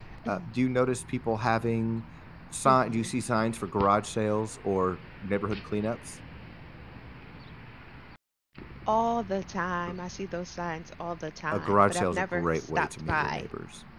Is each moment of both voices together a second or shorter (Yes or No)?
No